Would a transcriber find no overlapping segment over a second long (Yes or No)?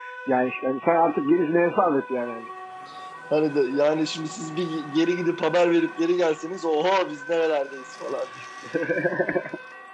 Yes